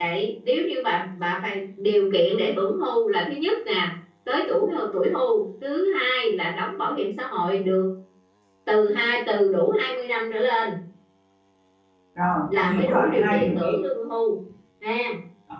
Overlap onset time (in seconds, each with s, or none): 12.5 s